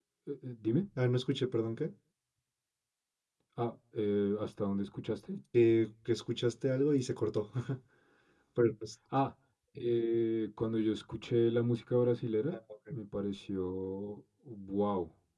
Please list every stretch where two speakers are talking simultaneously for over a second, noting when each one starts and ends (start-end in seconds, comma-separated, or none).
none